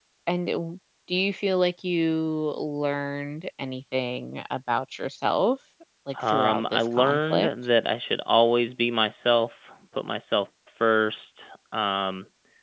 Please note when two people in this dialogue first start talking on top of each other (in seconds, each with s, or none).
6.3 s